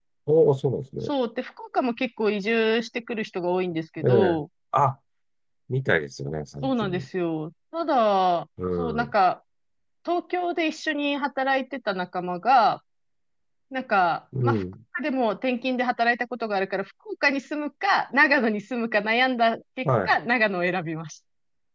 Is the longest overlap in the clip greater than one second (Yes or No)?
No